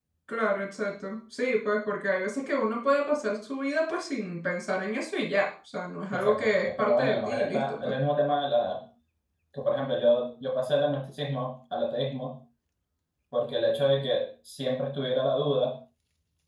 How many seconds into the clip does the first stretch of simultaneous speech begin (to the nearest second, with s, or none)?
6 s